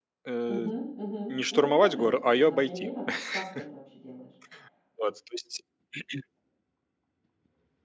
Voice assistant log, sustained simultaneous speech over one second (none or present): present